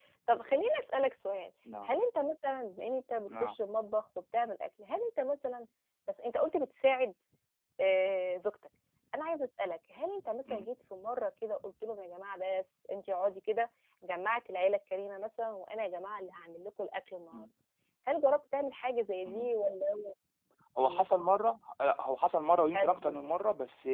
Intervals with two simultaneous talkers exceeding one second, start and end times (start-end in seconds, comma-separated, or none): none